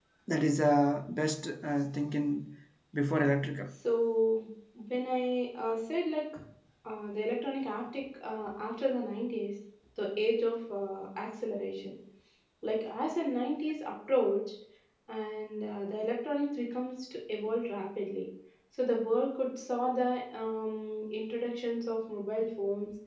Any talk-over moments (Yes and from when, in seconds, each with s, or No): No